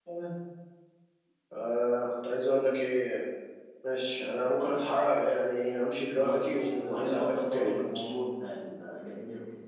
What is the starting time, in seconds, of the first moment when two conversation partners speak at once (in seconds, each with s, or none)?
6.2 s